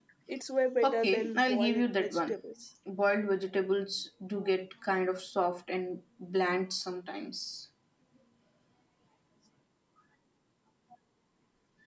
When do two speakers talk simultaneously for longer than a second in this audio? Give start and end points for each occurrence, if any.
0.8-2.3

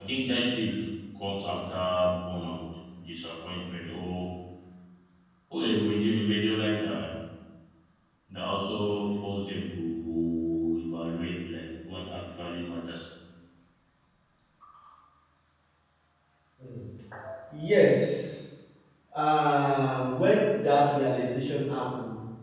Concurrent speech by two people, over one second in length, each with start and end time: none

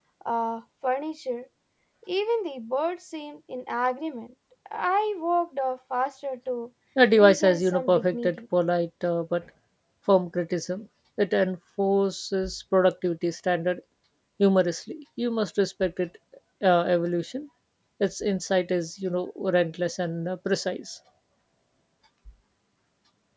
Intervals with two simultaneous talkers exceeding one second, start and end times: 7.1-8.4

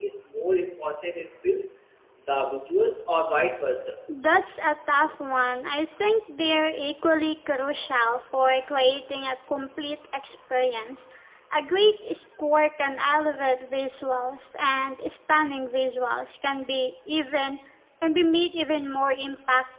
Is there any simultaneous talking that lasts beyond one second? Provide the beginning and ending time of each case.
none

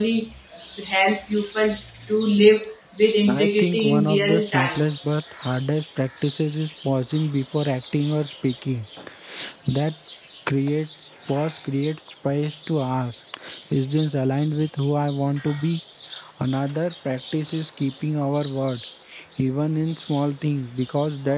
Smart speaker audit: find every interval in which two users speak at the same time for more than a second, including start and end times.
3.3-4.8

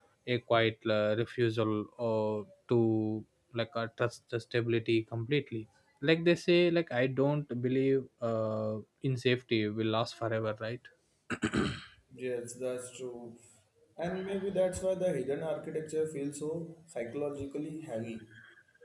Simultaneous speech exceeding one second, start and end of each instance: none

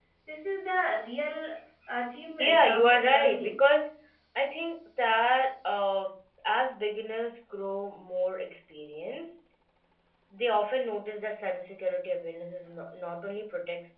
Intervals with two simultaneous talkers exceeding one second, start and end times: 2.4-3.6

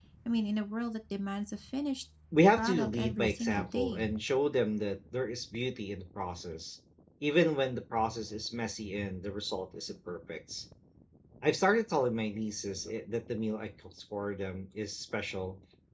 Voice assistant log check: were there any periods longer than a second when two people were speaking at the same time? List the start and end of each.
2.6-4.0

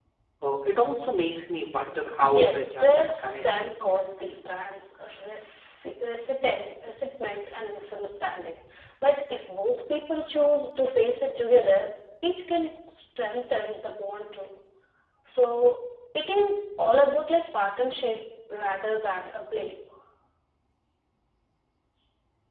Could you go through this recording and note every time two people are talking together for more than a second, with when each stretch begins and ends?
2.4-4.3

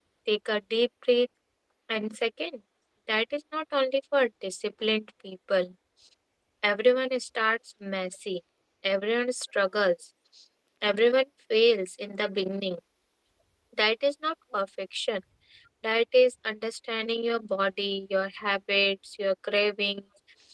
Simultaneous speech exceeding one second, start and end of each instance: none

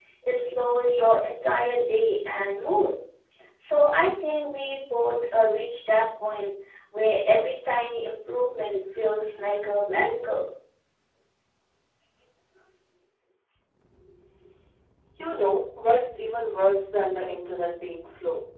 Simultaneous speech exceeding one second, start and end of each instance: none

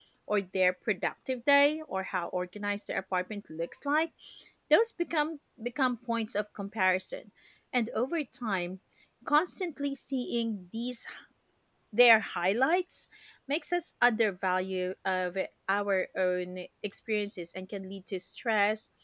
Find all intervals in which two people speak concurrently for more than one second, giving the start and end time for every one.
none

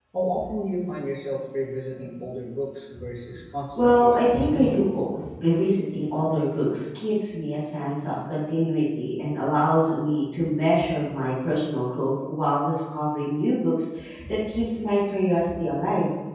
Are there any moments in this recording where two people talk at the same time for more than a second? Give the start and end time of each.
3.8-5.0

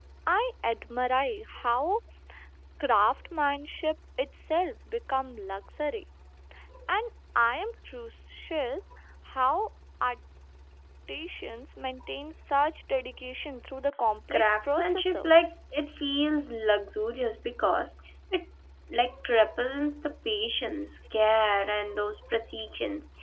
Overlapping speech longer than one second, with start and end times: 14.3-15.5

